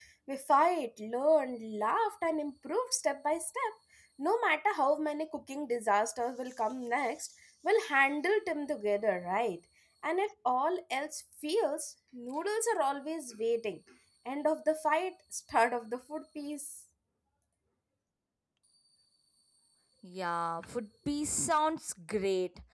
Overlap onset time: none

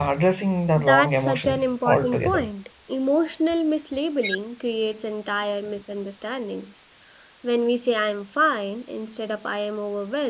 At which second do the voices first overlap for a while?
0.8 s

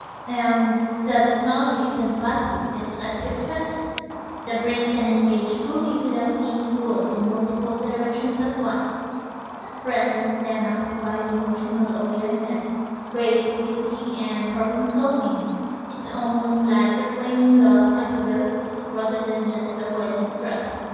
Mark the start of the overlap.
none

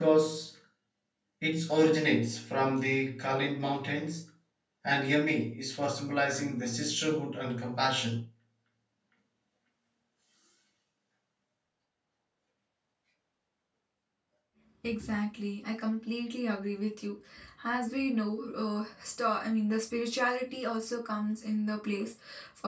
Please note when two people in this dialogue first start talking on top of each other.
none

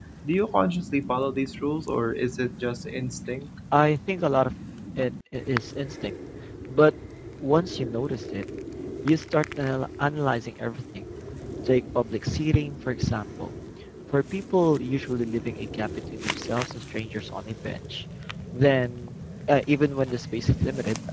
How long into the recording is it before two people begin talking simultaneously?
none

